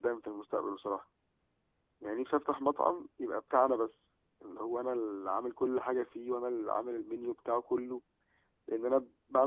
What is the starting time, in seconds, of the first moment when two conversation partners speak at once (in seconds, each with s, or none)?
none